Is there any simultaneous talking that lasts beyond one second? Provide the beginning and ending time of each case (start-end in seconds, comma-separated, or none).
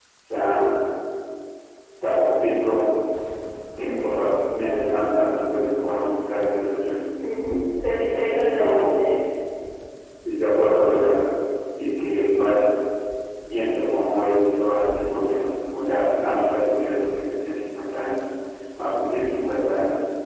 none